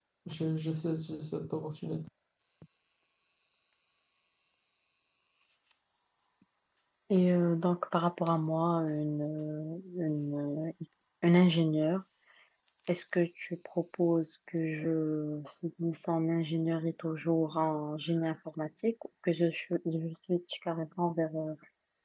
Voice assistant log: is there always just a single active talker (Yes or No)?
Yes